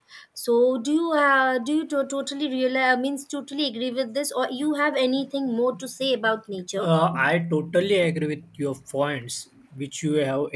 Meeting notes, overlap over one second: none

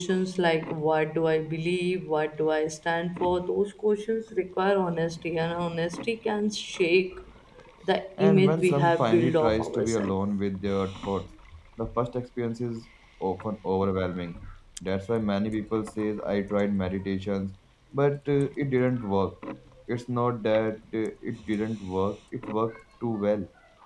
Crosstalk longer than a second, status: present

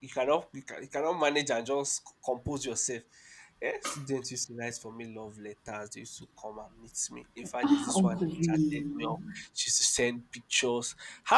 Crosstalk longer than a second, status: present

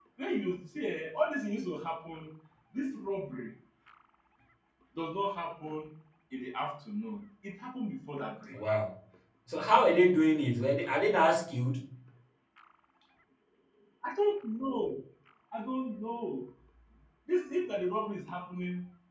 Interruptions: none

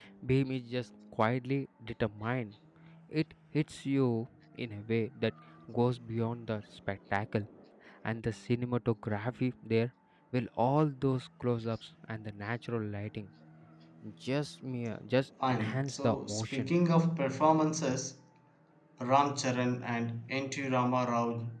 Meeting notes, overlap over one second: present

